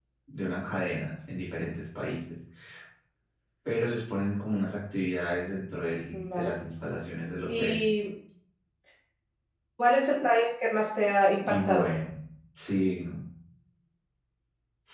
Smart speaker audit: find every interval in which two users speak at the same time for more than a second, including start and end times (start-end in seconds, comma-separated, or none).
none